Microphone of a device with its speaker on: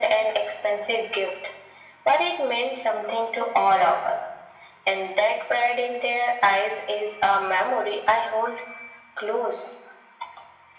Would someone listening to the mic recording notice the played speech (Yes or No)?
Yes